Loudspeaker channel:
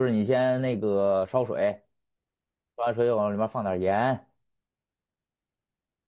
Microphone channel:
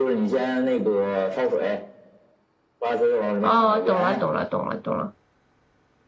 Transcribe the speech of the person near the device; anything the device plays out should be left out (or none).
哦，懂了，懂了，懂了，懂了。